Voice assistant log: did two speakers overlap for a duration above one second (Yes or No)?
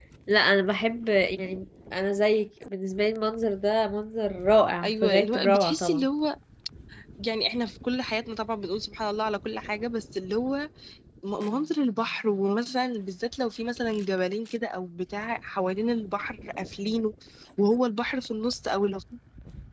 Yes